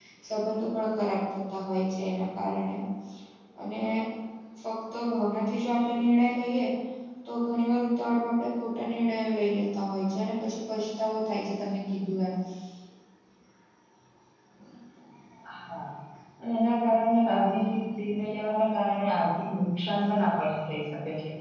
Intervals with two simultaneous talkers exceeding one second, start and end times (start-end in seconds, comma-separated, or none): none